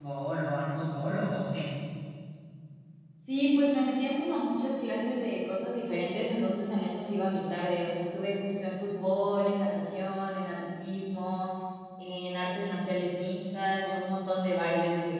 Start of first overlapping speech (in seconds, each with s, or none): none